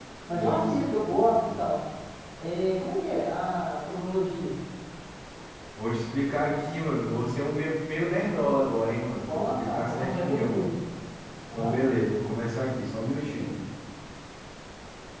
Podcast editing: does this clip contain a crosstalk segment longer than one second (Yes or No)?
Yes